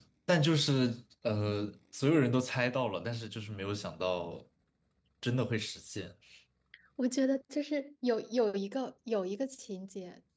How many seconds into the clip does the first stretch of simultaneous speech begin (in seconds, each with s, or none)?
none